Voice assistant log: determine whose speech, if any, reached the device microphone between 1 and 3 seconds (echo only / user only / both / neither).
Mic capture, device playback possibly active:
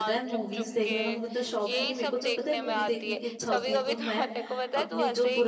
both